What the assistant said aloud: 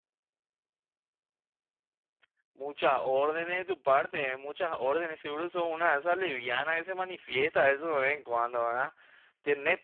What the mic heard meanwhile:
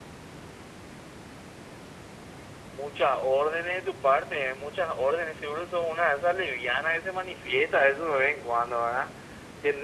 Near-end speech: none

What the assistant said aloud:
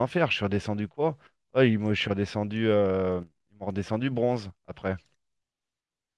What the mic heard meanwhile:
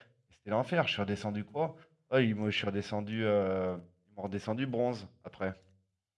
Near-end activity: none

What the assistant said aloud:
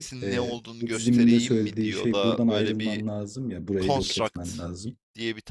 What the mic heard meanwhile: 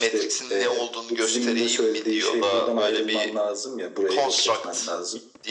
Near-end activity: none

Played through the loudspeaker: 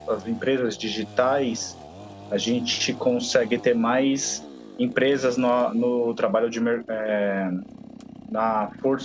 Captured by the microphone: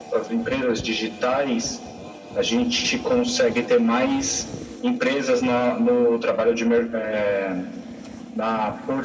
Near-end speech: none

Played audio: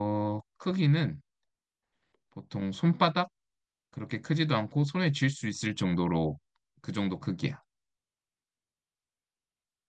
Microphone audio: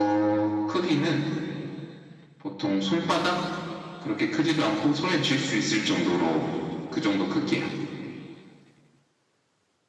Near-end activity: none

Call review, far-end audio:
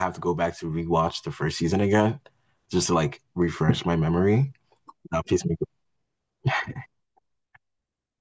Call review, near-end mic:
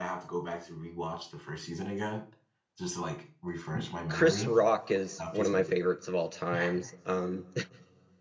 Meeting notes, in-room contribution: present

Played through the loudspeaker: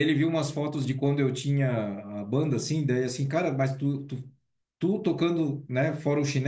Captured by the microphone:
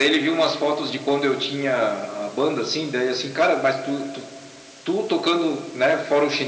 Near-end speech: none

